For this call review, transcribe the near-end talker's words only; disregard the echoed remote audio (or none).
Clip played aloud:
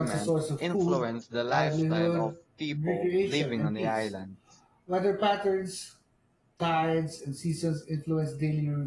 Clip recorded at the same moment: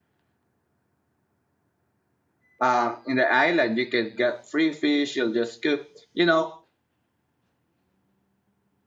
um in the island you can get free fish you'll just cook you know